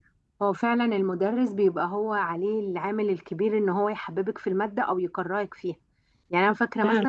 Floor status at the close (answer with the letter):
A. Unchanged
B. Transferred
A